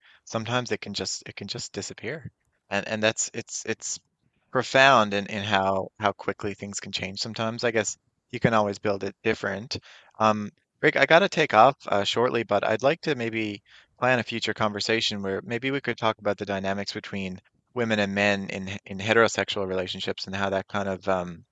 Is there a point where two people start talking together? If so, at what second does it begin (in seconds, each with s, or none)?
none